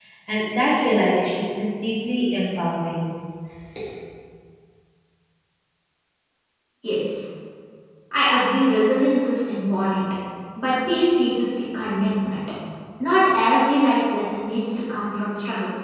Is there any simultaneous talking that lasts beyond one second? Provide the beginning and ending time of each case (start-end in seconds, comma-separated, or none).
none